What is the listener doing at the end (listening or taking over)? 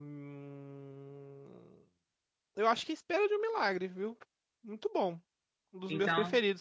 listening